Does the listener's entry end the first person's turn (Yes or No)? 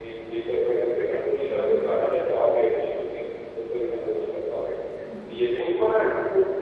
Yes